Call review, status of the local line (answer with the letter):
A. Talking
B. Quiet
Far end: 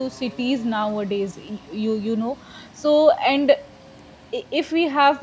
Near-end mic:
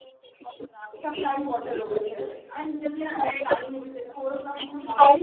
A